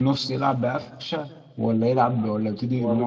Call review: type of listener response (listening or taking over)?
taking over